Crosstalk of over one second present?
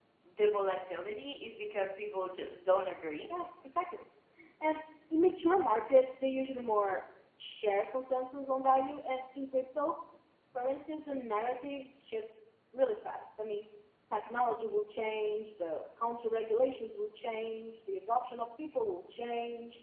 No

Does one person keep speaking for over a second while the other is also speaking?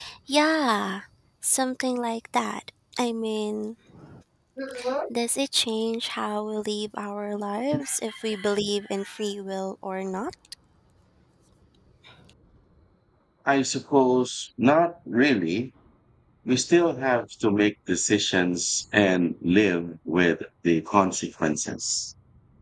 No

